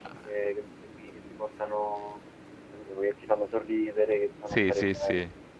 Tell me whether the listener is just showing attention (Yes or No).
No